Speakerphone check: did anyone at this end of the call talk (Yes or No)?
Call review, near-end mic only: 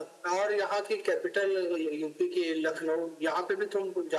No